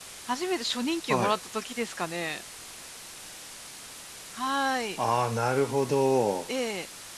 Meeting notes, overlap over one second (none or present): none